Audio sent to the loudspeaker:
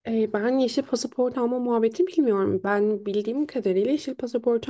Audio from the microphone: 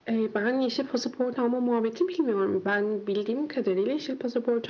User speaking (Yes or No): No